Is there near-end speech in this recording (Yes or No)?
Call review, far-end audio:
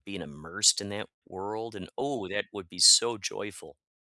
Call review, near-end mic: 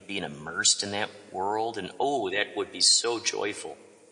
No